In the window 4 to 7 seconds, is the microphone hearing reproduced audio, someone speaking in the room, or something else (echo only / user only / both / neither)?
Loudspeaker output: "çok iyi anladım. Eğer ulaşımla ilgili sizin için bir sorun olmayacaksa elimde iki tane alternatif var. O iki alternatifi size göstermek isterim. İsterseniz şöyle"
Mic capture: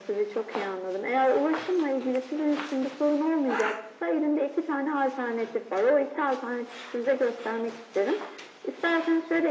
echo only